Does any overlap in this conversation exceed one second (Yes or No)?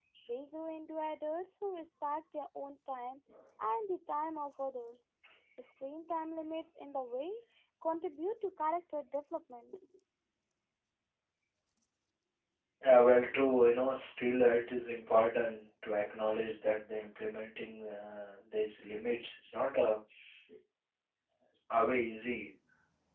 No